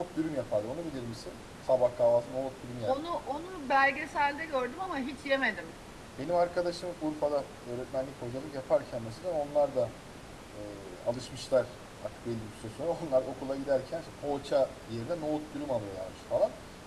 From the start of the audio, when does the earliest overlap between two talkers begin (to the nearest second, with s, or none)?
none